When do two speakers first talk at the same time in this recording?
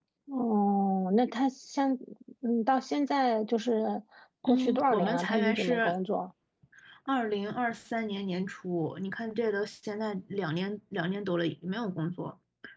4.4 s

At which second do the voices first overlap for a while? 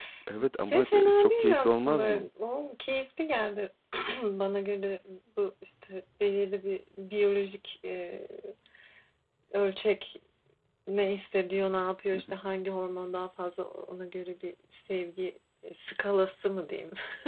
0.6 s

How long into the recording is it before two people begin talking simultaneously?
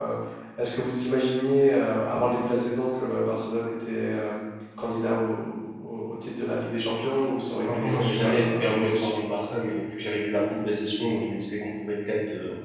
7.5 s

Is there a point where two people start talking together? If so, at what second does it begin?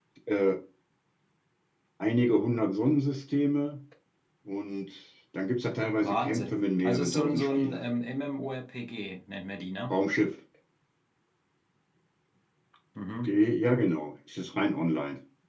6.0 s

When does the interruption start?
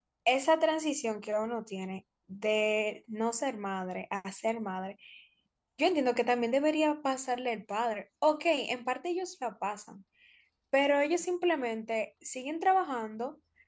none

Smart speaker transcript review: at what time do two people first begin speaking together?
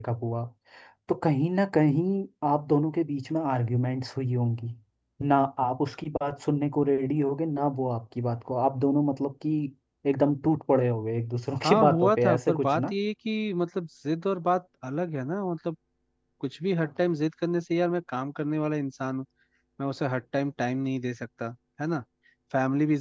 11.6 s

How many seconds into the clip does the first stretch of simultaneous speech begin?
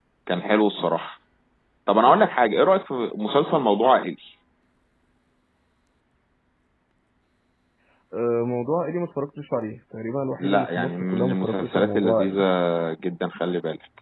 10.4 s

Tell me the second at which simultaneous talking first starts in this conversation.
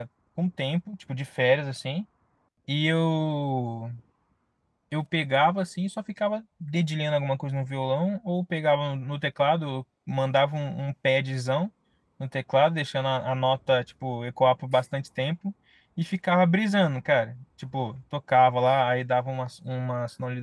none

